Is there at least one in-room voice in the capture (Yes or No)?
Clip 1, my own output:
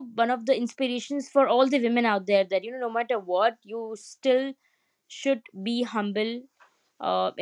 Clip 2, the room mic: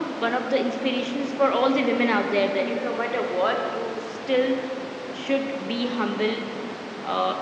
No